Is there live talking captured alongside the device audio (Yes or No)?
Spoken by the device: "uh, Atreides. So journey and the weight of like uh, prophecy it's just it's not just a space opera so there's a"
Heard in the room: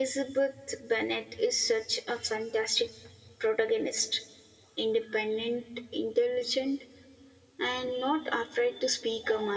Yes